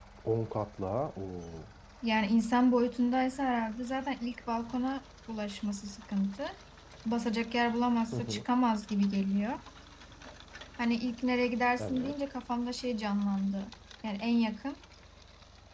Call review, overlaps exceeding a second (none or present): none